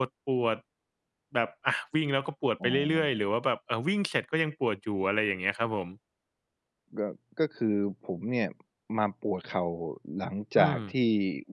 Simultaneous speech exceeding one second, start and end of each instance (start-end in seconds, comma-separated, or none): none